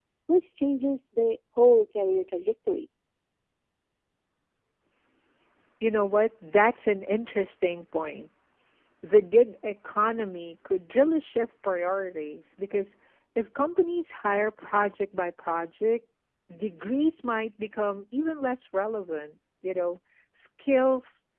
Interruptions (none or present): none